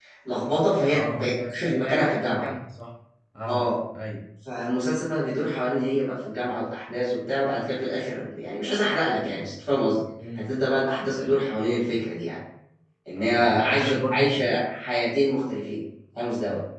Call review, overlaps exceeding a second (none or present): present